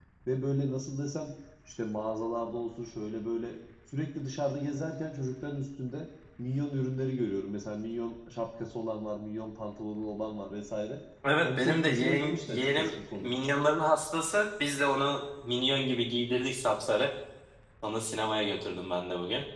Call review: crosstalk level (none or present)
present